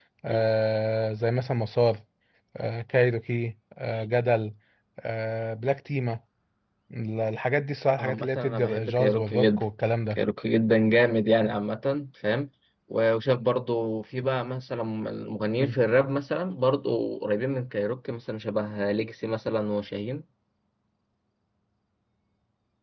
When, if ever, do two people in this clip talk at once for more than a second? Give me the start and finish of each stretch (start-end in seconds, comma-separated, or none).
8.0-9.6